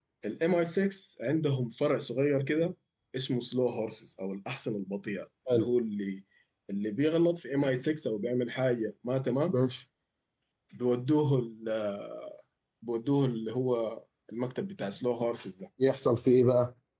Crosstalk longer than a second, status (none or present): none